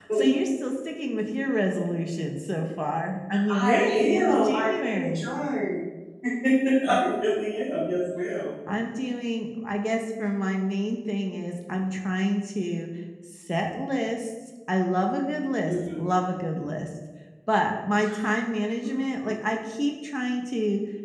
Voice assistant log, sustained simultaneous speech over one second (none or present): present